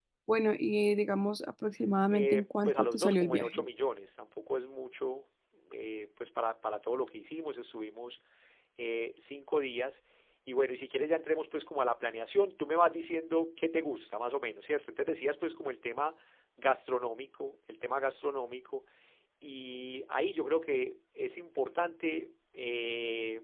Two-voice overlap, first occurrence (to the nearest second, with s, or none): 2 s